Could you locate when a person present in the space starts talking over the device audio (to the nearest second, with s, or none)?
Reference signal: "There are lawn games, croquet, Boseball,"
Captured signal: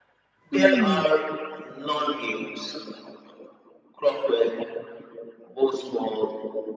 1 s